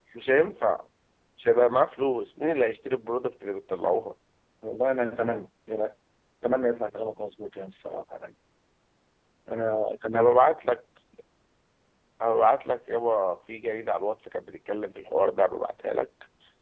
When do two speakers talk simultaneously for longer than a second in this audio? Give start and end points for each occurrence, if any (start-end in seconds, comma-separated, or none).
none